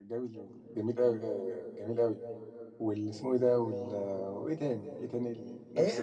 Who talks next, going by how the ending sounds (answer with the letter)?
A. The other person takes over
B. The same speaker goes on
A